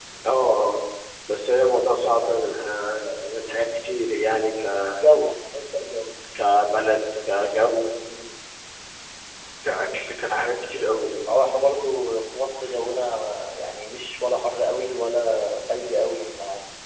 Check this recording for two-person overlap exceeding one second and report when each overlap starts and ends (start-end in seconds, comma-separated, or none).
none